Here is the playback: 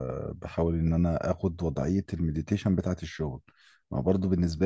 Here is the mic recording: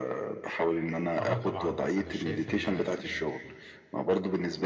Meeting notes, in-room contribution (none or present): present